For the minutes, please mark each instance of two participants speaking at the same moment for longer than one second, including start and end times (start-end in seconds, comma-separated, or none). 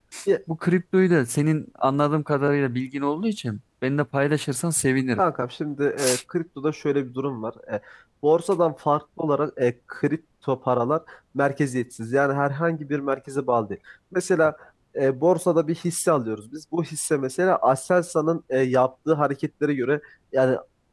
none